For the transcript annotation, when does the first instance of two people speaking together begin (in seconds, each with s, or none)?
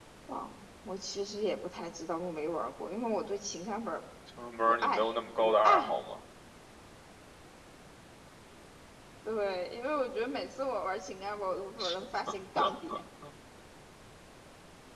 4.7 s